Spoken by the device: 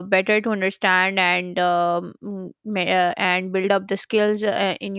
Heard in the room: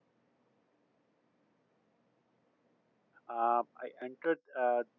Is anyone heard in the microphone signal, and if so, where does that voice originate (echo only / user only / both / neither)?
user only